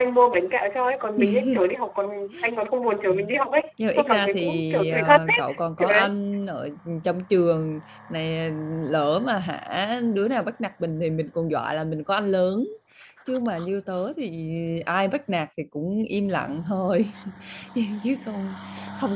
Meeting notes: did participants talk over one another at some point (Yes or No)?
Yes